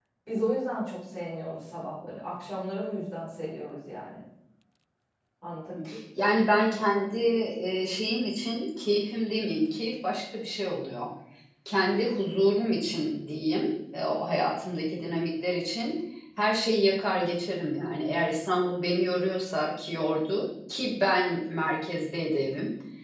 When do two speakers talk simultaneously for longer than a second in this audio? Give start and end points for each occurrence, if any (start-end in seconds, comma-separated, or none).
none